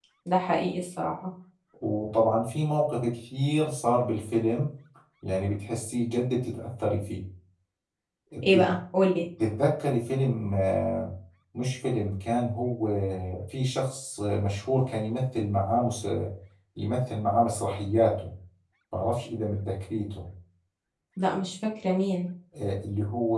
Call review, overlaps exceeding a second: none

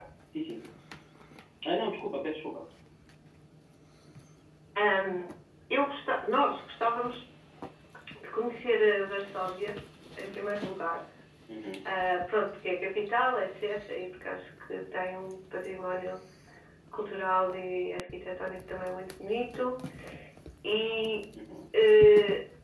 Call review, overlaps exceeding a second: none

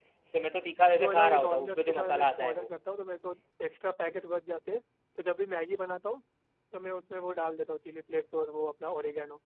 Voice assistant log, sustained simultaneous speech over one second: present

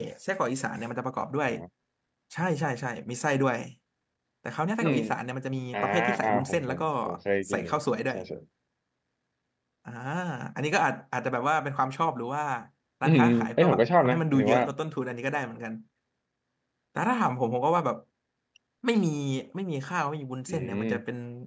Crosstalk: present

